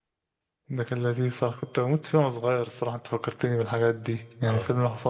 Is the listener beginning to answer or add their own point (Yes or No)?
No